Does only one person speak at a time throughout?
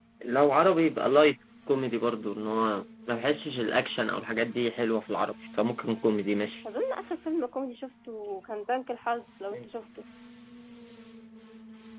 Yes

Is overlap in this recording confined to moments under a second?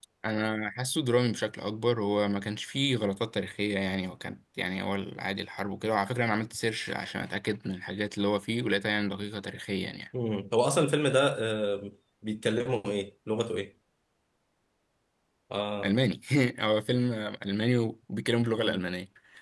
Yes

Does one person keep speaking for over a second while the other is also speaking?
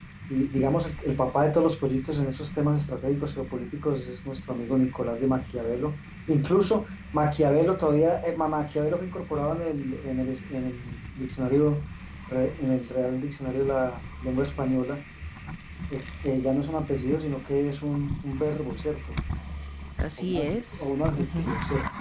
Yes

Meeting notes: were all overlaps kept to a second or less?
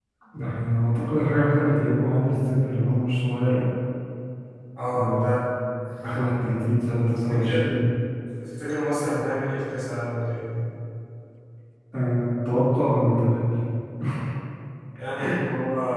Yes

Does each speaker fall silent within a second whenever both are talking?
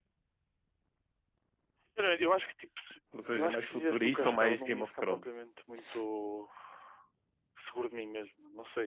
No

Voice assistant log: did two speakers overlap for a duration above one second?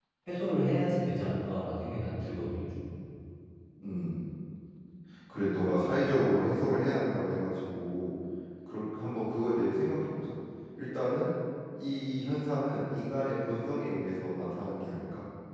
No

